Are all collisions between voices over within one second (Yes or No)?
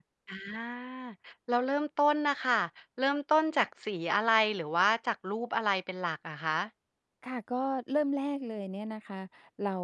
Yes